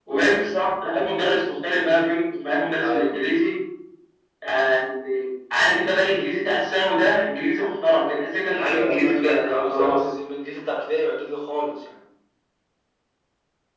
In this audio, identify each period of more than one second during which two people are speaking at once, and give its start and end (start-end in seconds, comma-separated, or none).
8.5-10.0